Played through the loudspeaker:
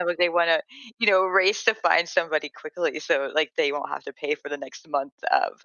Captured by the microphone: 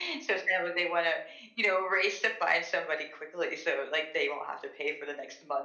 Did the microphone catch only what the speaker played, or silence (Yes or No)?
Yes